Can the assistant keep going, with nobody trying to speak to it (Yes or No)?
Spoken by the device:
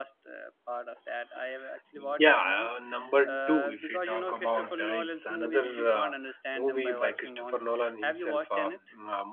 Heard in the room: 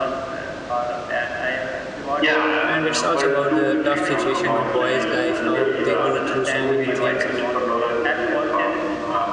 No